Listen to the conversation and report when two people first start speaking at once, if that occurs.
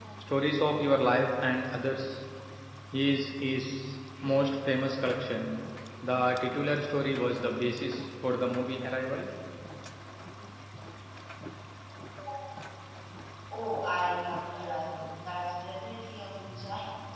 none

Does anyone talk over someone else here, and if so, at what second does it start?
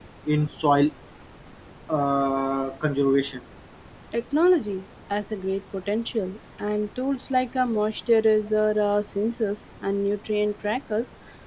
none

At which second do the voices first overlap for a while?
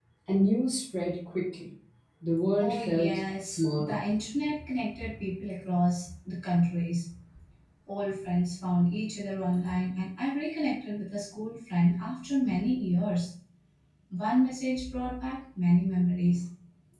2.6 s

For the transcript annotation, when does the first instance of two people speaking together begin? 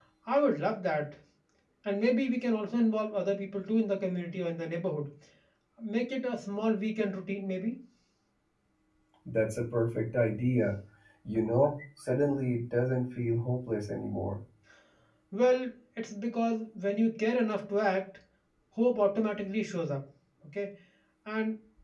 none

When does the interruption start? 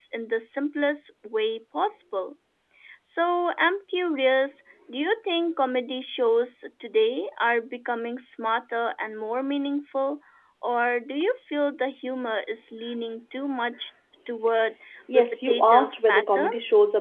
15.1 s

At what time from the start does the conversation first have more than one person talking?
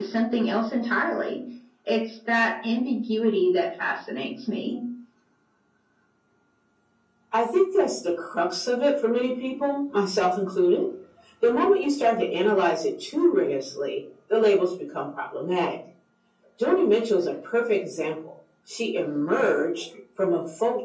none

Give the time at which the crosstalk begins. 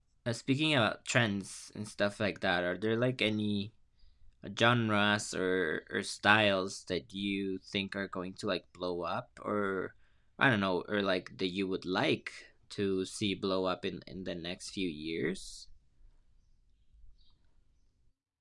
none

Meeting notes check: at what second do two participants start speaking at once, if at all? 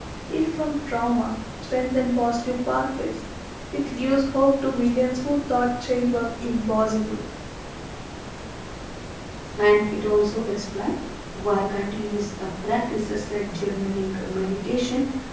none

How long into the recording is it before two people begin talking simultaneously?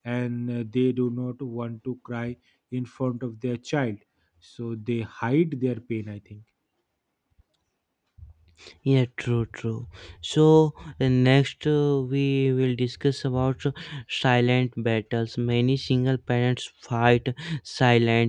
none

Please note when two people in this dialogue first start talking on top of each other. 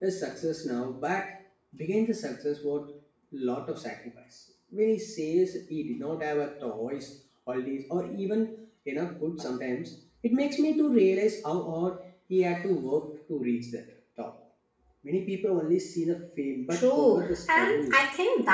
16.7 s

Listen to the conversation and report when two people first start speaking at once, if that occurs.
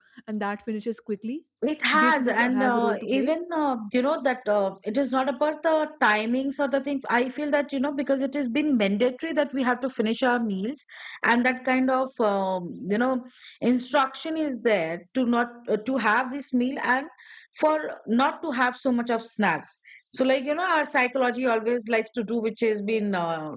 2.0 s

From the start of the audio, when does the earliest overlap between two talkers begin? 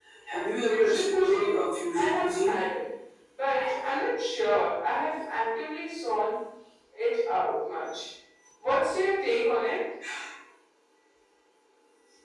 0.7 s

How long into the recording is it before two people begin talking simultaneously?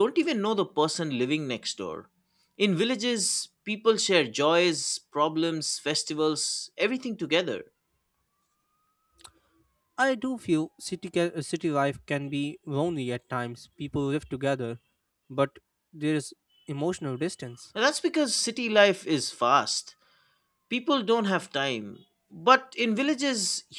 none

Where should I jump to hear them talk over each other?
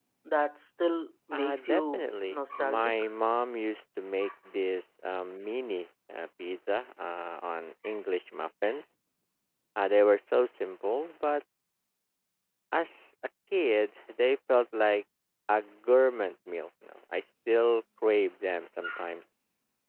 1.3 s

